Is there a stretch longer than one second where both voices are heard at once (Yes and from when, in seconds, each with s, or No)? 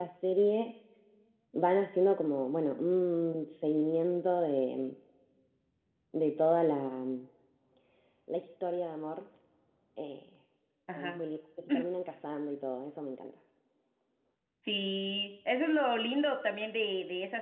No